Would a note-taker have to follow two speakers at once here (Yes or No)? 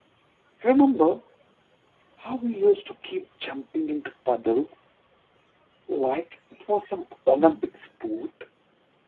No